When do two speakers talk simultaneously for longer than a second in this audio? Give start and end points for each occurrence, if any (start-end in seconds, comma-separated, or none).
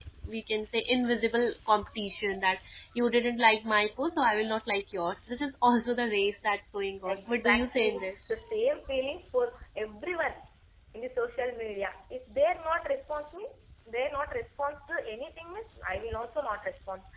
7.0-8.3